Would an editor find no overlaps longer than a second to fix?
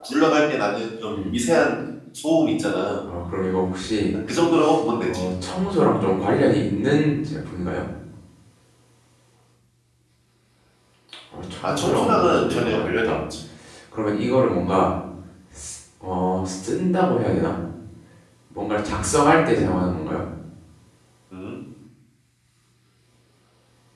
No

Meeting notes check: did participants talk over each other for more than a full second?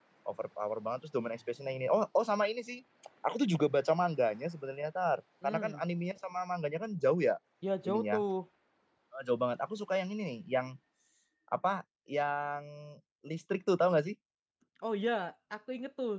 No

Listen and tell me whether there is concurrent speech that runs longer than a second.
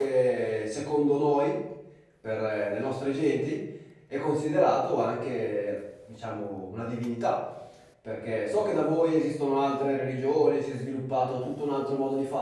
No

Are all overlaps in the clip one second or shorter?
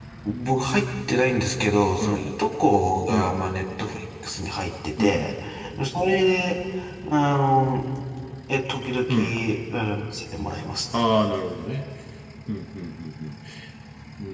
Yes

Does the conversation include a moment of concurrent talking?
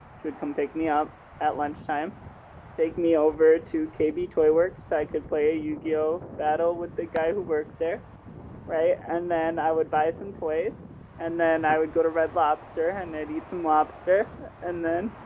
No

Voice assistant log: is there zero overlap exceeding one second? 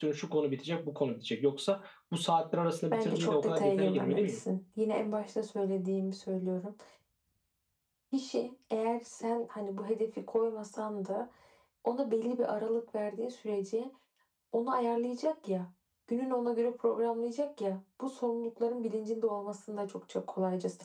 No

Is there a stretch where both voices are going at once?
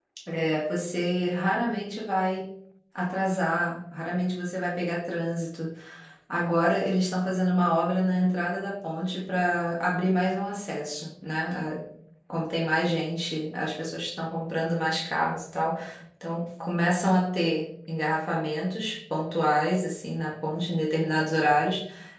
No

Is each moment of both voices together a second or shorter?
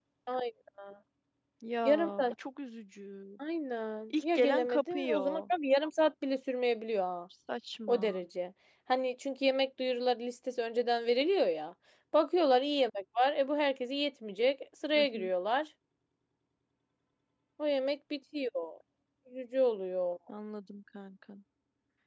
No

